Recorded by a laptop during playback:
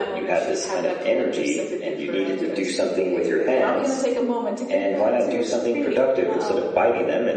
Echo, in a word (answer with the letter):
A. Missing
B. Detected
B